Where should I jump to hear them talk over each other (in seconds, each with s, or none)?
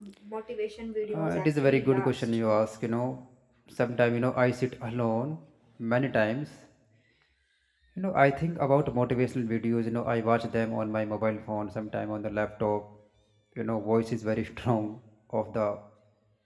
1.1 s